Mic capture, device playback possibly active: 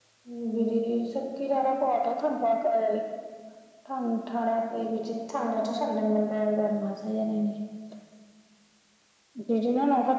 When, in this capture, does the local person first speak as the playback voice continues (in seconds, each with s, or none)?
none